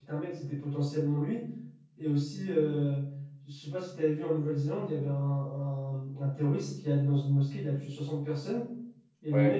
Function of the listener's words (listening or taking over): listening